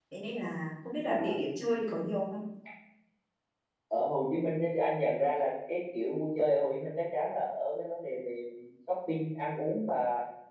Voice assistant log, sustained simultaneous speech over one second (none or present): none